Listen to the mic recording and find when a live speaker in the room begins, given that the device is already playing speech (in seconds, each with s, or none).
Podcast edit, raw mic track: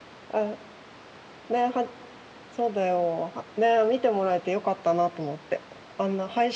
none